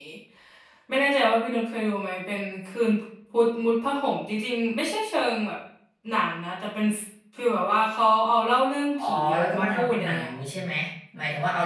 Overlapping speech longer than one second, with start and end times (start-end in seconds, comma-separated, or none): 9.0-10.3